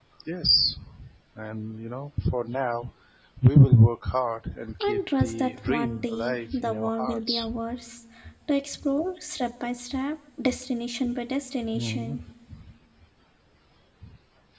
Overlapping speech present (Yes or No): Yes